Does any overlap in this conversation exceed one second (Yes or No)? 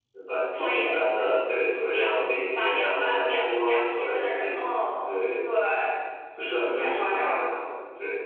Yes